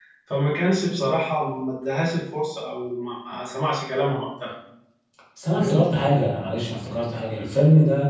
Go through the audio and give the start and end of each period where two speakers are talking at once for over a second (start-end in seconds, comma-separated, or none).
none